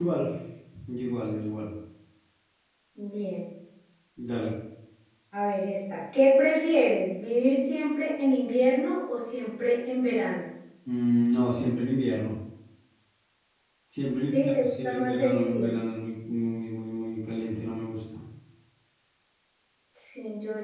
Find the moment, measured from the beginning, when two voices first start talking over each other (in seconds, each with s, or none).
14.4 s